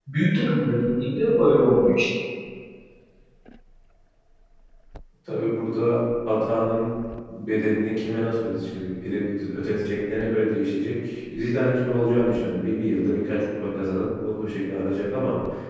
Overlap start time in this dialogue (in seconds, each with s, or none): none